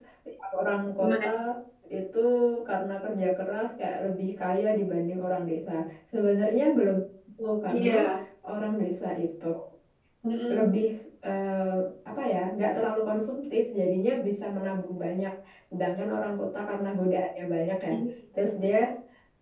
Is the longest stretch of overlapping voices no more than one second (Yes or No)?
Yes